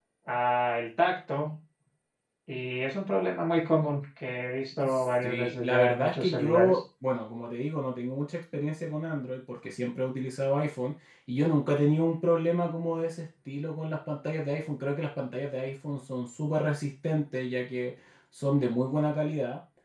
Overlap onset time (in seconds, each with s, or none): 4.9 s